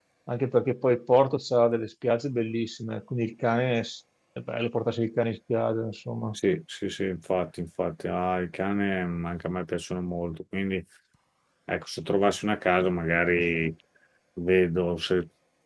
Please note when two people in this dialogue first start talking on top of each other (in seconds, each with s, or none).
none